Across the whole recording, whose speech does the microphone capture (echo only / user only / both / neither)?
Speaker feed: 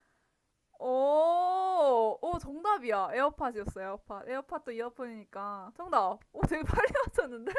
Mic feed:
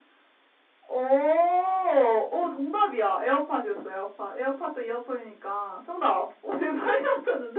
echo only